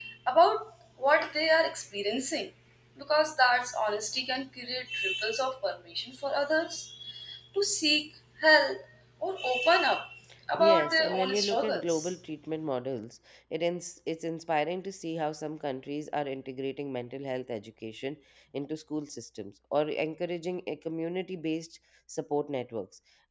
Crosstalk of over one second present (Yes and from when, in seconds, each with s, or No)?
Yes, from 10.6 s